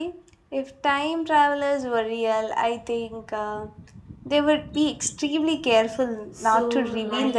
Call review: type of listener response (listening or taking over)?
taking over